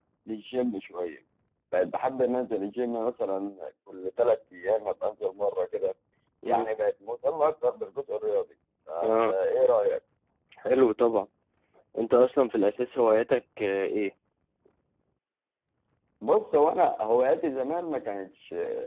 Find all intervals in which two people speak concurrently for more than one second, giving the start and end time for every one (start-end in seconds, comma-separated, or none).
none